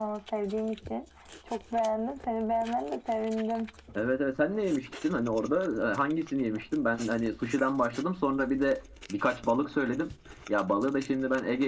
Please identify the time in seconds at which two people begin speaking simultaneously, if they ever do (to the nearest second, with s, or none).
none